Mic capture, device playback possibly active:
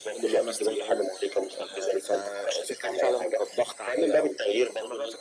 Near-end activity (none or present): none